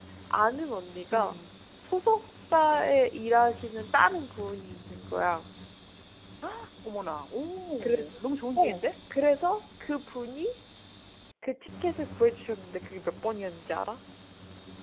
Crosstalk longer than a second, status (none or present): none